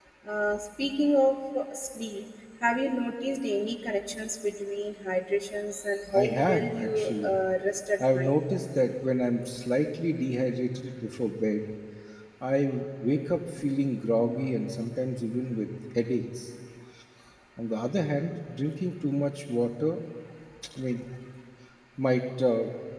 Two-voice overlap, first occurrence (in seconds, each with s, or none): 6.1 s